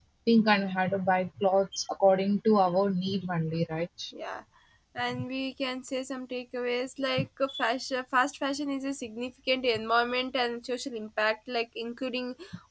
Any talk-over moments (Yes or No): No